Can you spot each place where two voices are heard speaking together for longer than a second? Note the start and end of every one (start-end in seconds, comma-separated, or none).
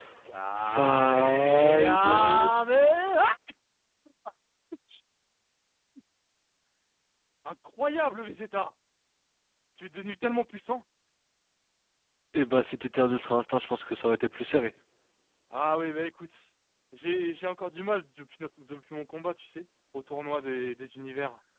0.6-2.6